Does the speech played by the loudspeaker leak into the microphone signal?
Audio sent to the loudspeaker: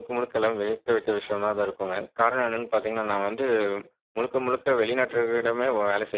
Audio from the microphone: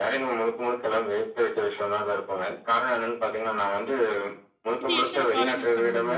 Yes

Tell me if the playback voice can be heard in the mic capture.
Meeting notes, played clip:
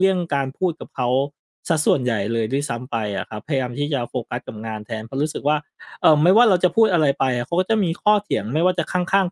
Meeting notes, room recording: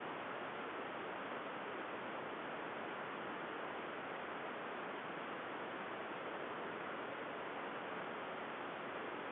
No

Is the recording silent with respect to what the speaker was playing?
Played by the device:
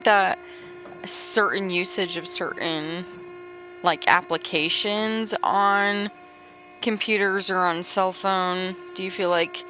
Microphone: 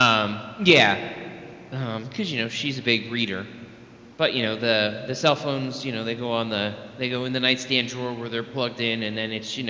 Yes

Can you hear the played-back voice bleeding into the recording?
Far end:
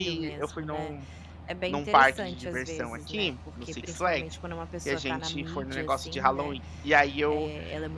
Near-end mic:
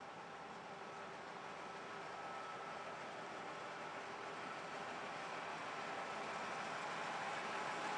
No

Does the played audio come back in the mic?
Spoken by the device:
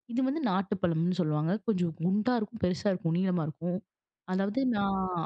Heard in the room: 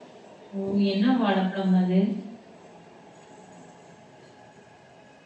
No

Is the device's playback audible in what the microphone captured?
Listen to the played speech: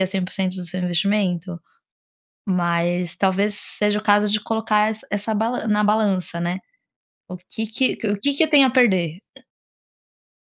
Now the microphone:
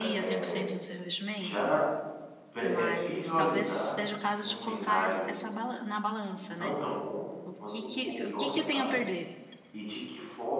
Yes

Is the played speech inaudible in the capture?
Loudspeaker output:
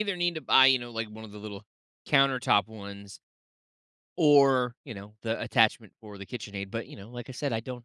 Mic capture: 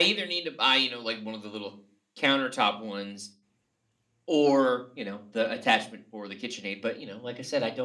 No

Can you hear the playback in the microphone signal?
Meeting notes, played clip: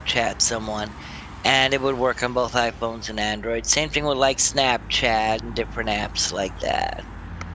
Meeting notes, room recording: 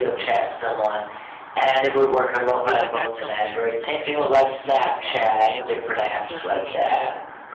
Yes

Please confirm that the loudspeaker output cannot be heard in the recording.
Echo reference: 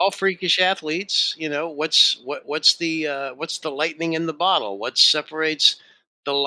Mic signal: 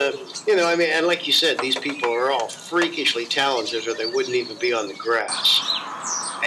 Yes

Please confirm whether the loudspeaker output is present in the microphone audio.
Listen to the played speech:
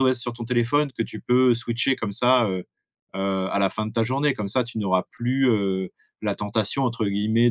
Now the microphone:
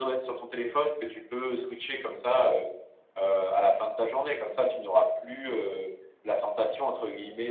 Yes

